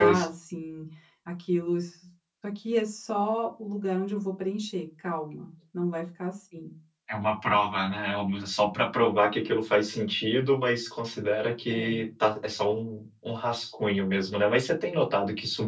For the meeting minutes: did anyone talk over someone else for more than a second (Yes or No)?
No